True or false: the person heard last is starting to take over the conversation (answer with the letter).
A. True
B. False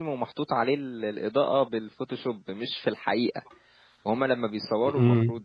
B